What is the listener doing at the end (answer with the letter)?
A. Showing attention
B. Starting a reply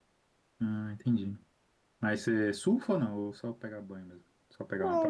B